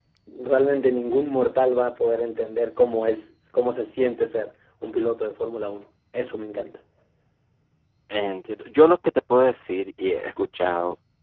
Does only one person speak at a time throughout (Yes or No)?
Yes